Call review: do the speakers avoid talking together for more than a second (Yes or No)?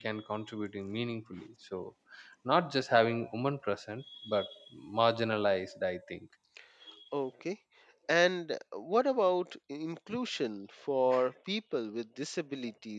Yes